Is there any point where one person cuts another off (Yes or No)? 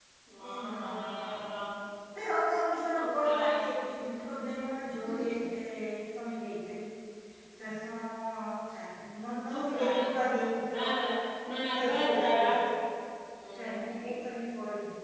Yes